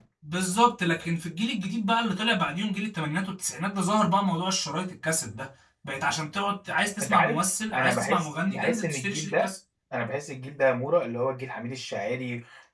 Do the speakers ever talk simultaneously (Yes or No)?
Yes